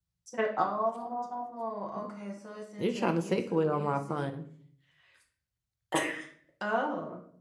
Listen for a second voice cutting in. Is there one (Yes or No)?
Yes